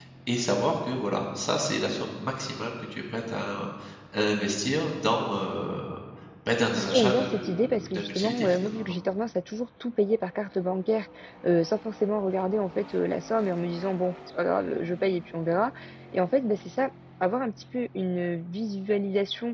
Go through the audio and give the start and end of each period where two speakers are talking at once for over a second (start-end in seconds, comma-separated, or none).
6.8-8.9